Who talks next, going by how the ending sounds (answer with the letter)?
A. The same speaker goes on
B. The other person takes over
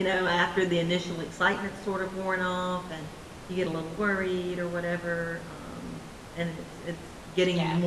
A